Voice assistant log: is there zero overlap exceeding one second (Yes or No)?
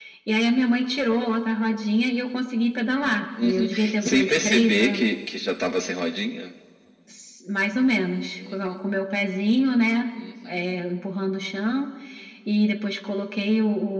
No